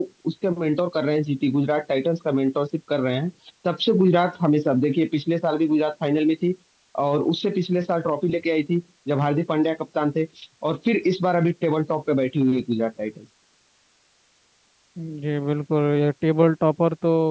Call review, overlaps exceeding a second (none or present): none